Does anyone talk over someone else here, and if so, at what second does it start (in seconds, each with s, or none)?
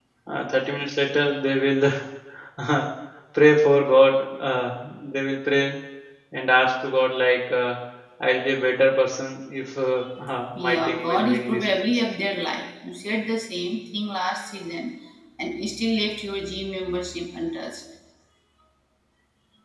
10.6 s